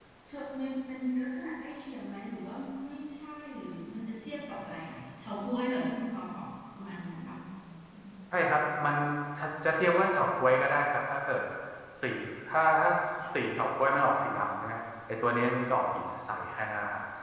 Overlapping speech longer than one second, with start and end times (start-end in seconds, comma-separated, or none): none